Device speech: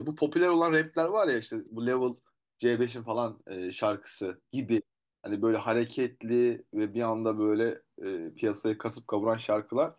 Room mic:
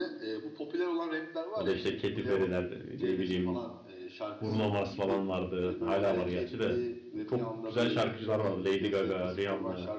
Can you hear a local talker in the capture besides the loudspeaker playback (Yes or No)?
Yes